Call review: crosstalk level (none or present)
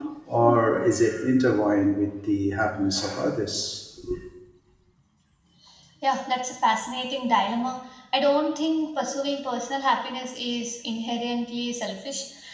none